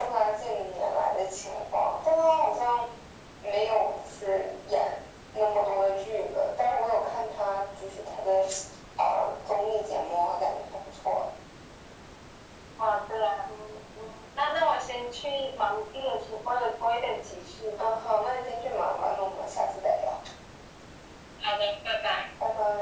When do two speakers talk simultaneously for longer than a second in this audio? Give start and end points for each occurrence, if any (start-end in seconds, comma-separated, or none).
none